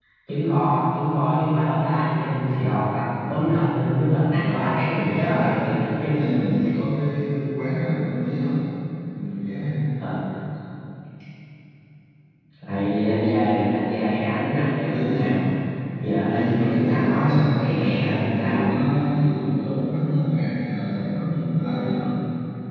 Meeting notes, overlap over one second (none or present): present